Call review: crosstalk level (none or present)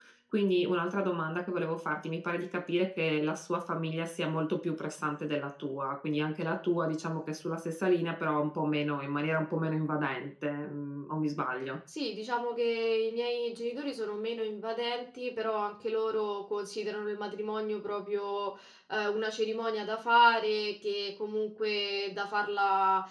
none